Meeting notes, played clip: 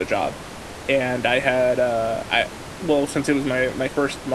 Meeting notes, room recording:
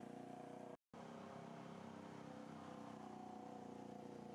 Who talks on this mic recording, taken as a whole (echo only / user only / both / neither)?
neither